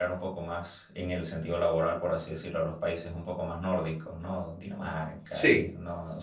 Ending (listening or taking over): listening